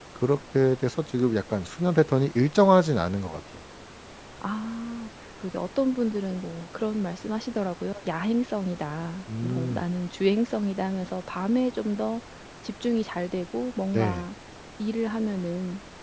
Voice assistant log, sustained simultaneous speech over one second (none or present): none